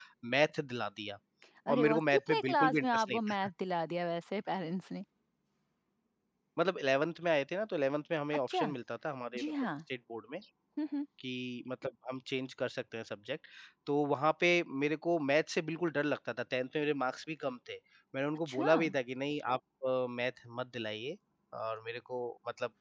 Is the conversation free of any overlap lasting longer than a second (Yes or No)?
No